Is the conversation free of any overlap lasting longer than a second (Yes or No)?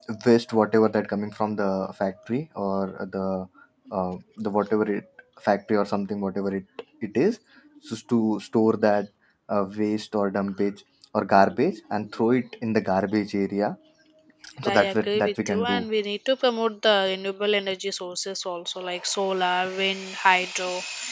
No